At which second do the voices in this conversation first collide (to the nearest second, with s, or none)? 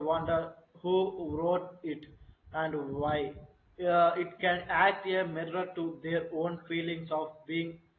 none